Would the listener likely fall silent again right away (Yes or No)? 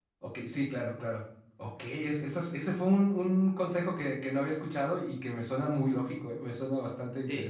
No